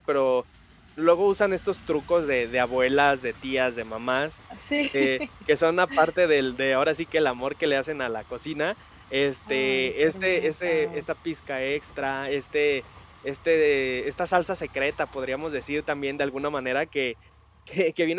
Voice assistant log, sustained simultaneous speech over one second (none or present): present